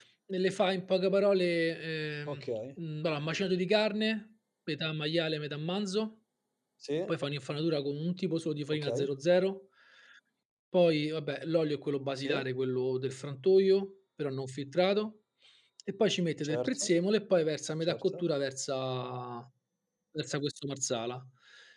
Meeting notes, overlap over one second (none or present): none